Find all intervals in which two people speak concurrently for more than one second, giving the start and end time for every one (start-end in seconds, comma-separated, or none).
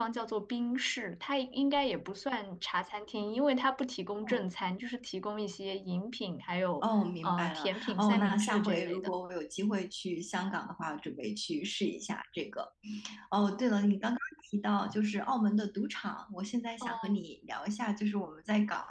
7.2-9.1